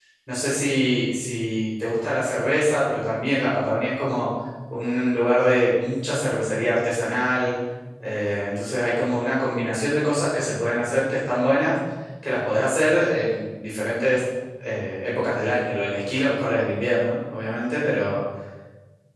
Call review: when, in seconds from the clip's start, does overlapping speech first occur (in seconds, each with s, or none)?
none